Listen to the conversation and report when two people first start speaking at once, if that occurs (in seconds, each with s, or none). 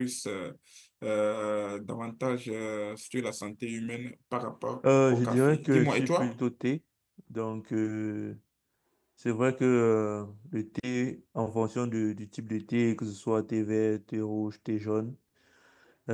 5.1 s